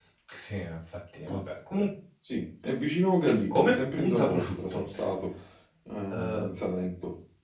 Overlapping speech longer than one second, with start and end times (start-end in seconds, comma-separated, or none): 3.5-4.8